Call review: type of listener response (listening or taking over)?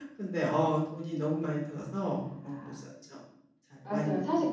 taking over